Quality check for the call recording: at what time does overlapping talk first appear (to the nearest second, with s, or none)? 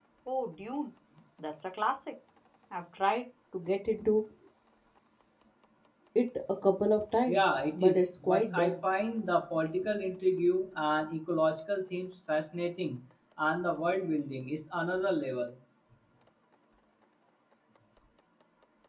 7 s